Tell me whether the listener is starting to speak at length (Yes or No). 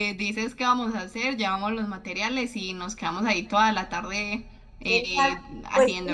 Yes